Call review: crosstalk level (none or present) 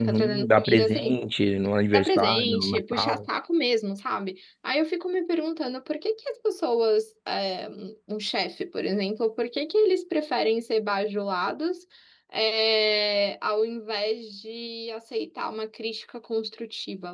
present